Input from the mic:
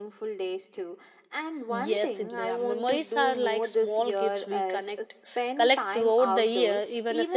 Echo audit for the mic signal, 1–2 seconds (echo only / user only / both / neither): both